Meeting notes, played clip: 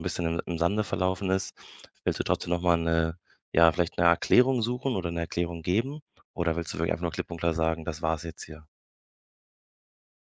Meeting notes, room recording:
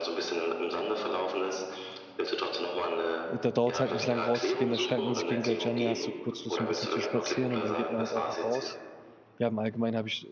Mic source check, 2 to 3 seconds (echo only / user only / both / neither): echo only